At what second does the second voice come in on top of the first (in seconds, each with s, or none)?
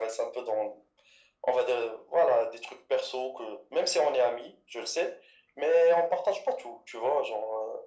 none